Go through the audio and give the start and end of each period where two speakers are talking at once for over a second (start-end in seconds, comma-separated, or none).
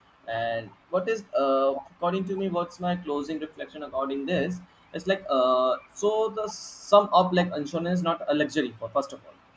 none